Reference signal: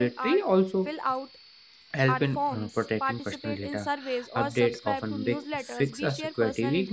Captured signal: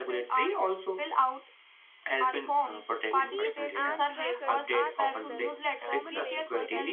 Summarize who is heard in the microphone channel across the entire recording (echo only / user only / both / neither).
both